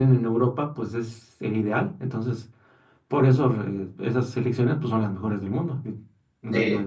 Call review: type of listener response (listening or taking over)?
taking over